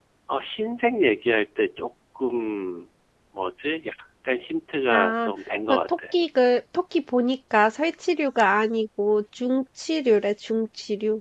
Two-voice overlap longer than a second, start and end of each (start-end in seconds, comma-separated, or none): none